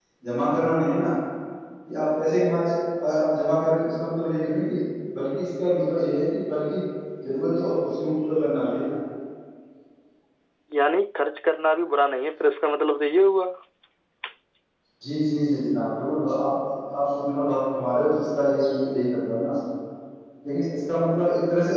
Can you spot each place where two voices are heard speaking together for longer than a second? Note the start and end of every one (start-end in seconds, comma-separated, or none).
none